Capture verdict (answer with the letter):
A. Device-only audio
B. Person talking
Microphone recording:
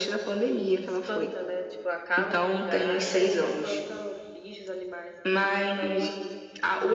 A